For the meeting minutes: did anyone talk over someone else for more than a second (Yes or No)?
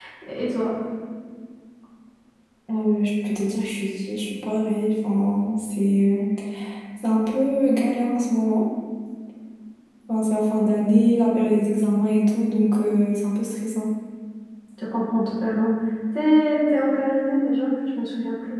No